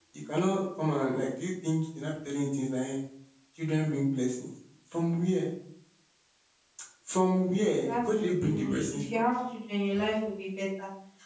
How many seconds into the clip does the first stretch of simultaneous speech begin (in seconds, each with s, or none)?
7.8 s